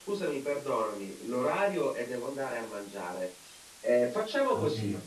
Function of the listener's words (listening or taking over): listening